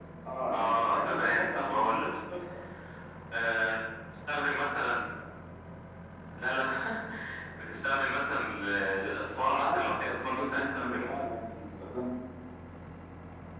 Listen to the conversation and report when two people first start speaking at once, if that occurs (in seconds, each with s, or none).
0.5 s